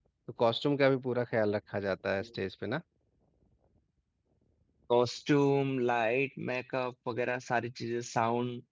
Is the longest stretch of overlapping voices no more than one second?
Yes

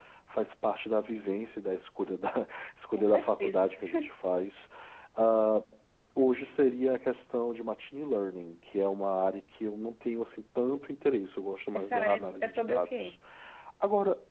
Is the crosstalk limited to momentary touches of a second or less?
No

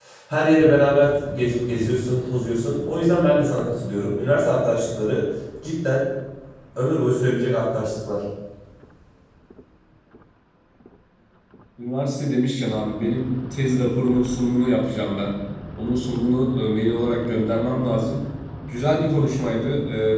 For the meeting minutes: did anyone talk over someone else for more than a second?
No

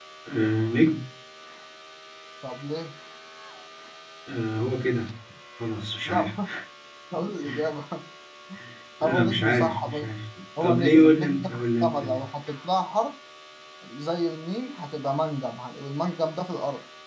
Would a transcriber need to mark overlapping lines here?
Yes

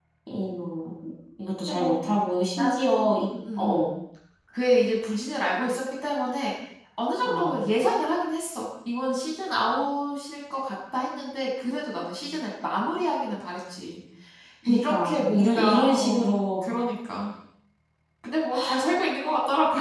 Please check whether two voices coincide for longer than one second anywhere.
Yes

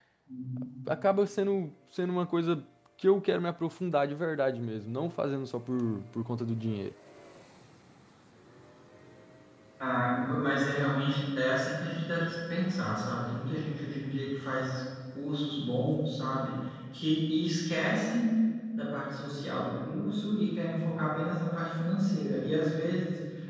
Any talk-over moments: No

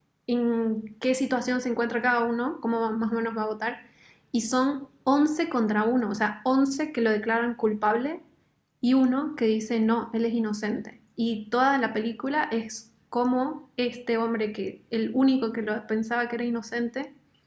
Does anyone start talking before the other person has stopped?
No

